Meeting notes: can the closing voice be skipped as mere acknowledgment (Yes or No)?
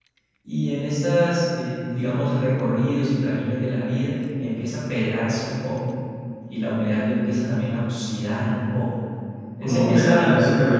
No